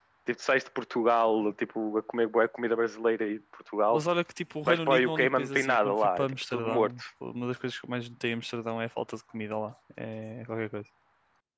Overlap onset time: 4.7 s

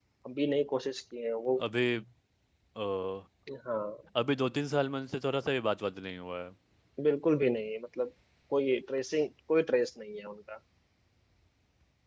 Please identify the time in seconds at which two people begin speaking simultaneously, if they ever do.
none

